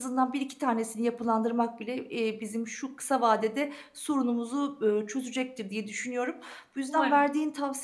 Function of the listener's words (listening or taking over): listening